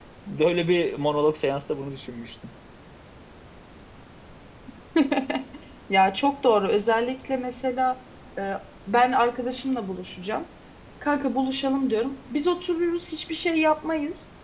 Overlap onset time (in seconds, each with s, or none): none